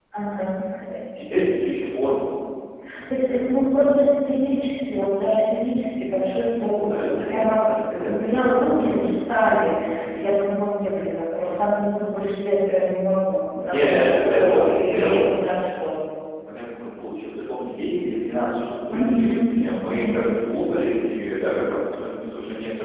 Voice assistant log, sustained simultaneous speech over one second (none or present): present